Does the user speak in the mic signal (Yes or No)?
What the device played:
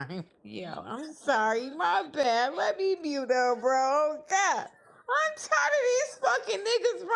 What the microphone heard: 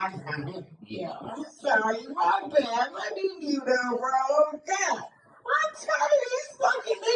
No